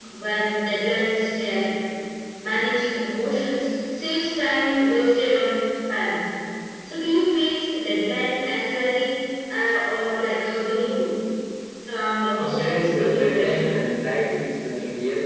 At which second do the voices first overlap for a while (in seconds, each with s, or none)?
12.4 s